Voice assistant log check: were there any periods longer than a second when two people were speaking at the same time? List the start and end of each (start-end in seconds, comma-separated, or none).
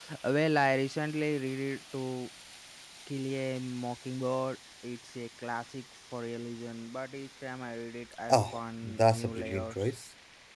8.3-9.9